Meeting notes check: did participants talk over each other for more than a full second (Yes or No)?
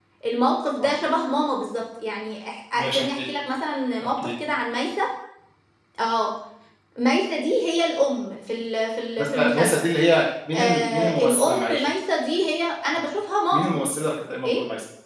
Yes